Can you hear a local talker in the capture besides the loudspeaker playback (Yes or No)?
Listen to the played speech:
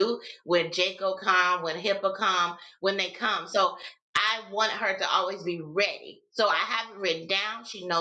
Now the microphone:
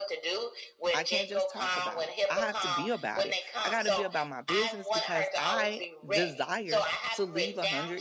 Yes